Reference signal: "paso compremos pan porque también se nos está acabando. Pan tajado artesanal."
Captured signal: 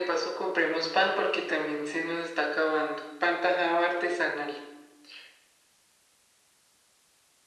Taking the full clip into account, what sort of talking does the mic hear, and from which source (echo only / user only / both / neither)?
echo only